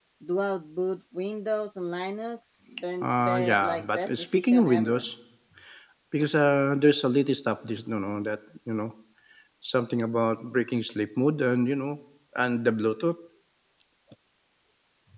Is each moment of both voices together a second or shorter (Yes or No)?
No